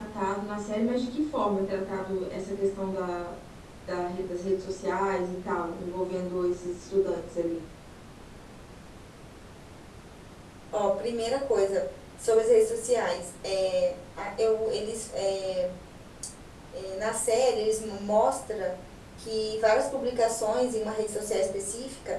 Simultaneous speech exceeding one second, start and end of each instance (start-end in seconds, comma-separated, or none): none